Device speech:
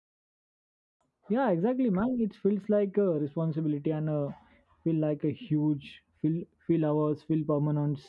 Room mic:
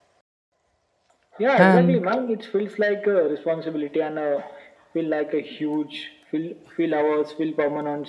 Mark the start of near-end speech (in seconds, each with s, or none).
1.6 s